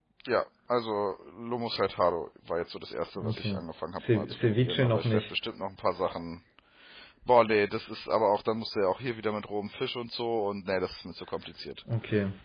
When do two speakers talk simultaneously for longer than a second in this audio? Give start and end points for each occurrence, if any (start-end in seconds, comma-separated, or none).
4.0-5.3